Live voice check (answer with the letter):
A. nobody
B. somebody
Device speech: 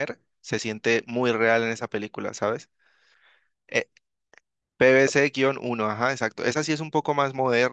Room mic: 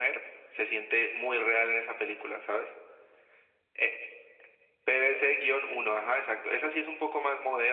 A